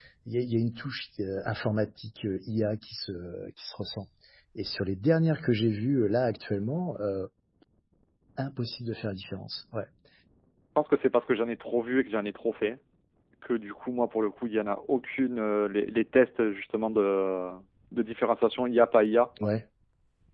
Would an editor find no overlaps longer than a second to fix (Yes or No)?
Yes